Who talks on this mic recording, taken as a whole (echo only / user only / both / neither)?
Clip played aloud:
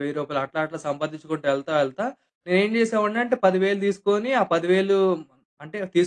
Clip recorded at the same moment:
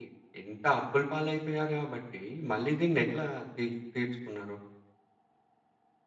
user only